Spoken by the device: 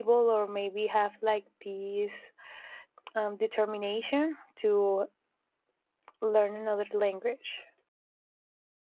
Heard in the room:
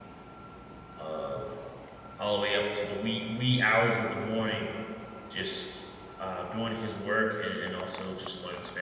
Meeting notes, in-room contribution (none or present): present